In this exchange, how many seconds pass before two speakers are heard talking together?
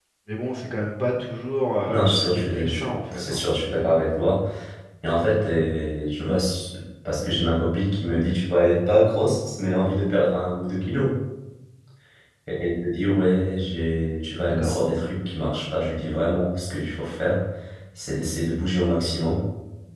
1.9 s

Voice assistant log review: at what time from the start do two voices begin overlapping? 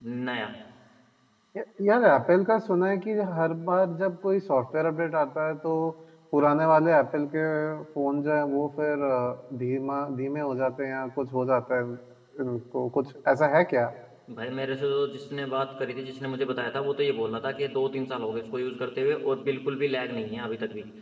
none

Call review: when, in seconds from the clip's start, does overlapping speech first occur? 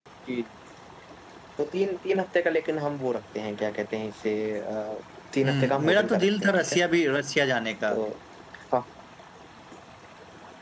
5.4 s

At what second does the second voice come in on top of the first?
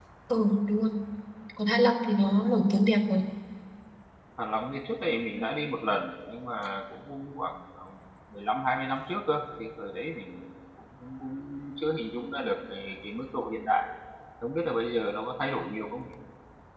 none

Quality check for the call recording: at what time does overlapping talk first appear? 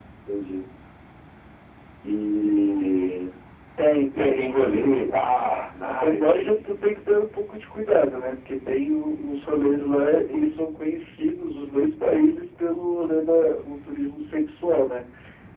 4.2 s

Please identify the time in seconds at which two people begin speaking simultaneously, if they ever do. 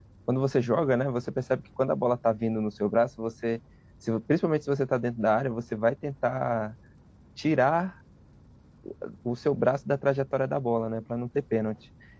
none

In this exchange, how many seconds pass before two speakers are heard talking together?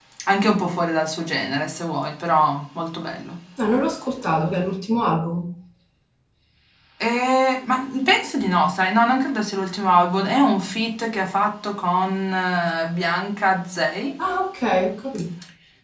none

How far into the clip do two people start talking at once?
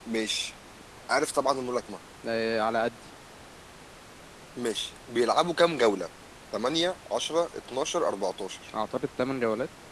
none

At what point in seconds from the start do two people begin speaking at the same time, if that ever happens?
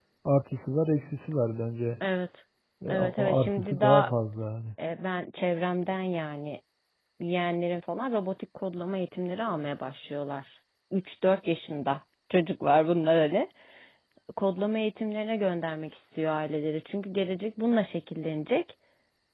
2.9 s

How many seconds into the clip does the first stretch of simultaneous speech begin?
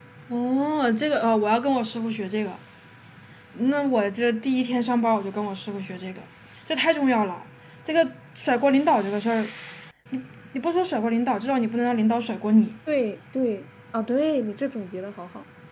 none

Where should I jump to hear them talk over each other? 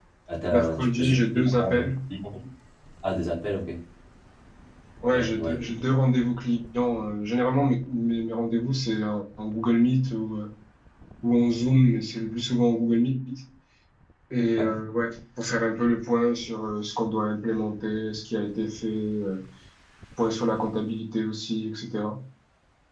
0.5 s

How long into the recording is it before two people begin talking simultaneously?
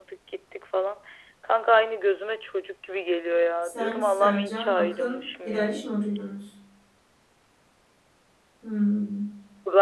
3.6 s

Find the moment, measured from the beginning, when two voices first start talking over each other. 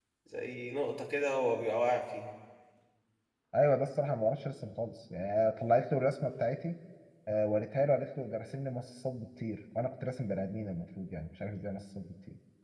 none

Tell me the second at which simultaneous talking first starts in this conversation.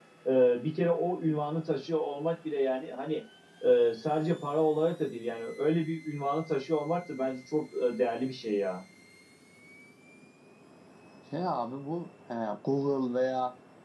none

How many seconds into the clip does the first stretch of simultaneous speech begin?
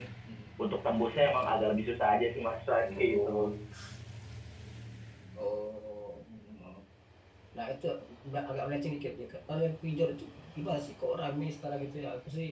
none

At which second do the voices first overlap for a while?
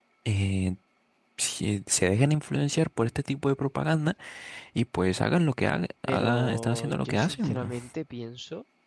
6.1 s

